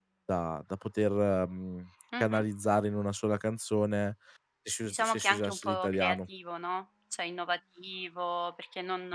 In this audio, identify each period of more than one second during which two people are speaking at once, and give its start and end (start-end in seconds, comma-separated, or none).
4.8-6.2